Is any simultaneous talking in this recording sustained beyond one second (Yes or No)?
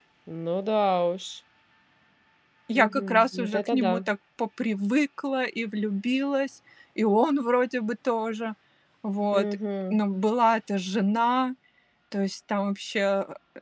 Yes